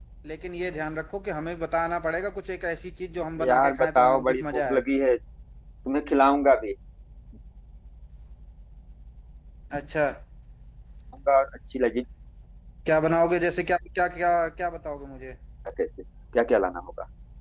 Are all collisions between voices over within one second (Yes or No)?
No